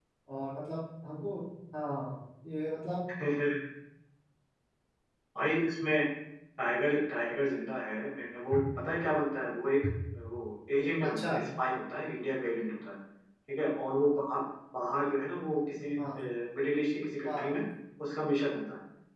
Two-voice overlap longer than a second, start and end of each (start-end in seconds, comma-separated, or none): none